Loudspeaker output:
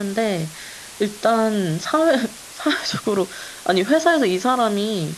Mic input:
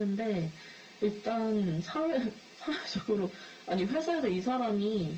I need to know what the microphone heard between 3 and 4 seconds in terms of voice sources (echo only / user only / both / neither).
echo only